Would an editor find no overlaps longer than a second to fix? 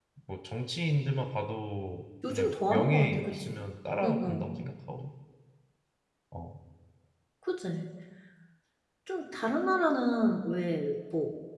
No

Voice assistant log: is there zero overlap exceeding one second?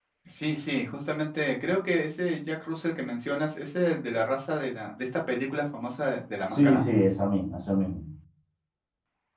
Yes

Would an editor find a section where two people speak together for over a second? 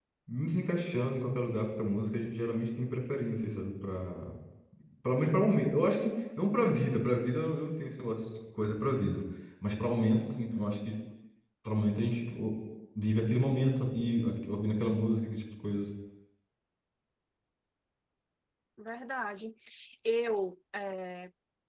No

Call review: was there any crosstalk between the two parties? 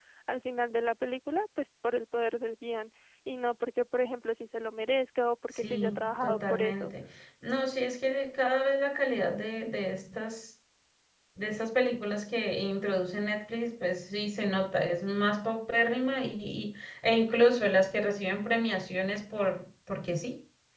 Yes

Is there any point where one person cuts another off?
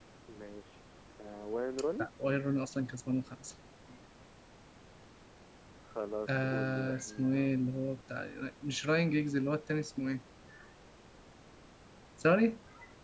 Yes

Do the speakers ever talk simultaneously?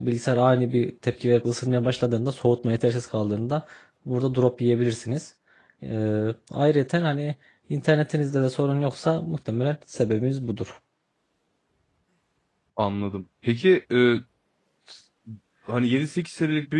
No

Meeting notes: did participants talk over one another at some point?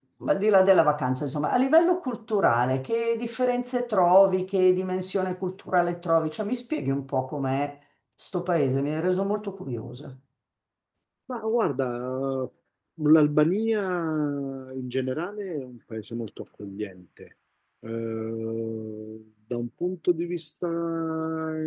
No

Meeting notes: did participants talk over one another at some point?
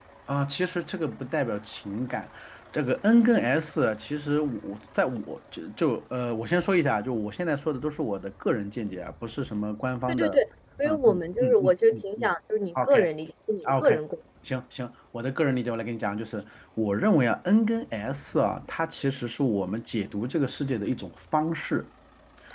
Yes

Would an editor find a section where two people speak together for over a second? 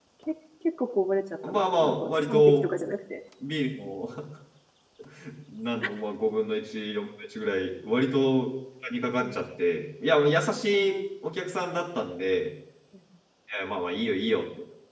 Yes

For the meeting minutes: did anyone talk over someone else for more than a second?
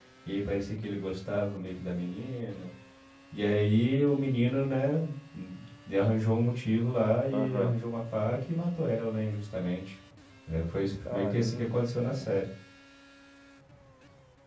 Yes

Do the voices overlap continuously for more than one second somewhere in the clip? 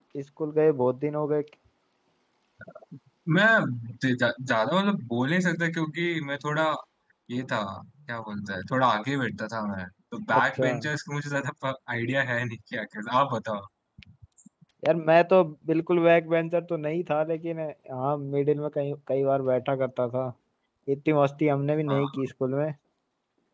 No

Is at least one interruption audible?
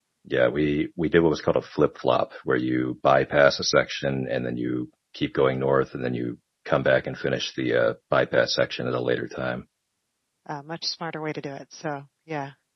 No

